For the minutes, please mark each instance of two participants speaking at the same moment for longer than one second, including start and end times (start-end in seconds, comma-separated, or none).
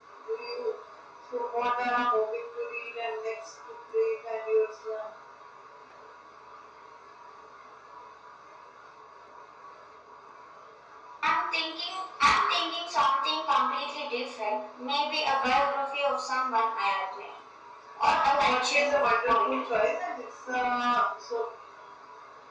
18.3-19.7